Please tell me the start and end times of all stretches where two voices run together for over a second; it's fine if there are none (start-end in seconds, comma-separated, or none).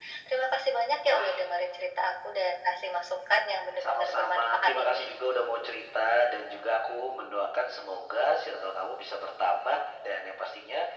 3.8-5.0